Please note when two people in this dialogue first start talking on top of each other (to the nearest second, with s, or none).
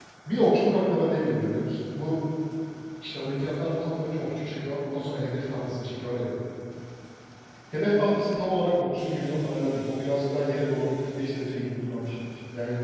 none